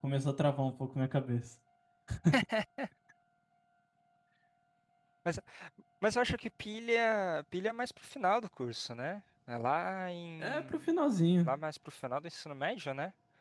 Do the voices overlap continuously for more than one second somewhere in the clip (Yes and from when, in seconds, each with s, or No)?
No